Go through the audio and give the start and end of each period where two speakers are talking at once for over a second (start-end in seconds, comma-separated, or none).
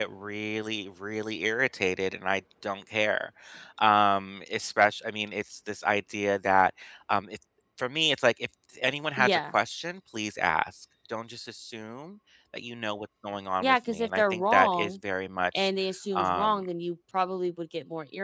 13.6-14.9